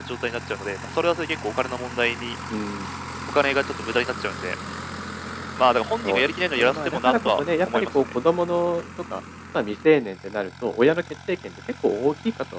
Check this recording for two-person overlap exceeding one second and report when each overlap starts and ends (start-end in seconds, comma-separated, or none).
6.0-8.0